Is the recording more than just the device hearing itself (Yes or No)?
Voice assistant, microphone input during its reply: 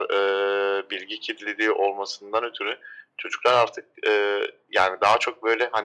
No